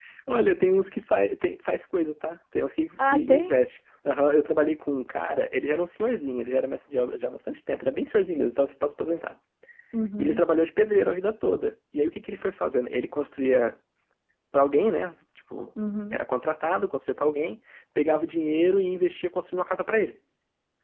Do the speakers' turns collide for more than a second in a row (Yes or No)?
No